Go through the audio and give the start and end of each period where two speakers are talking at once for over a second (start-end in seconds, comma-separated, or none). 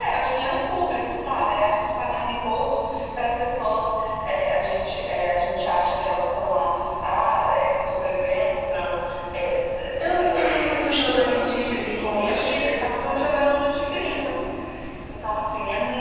10.0-12.9